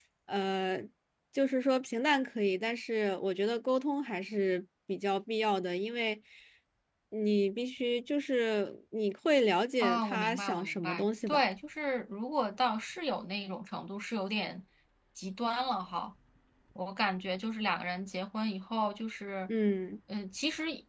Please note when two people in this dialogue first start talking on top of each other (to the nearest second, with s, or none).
10 s